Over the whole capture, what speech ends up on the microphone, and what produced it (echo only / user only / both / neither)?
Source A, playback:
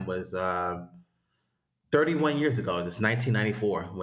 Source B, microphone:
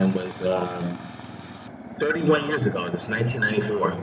echo only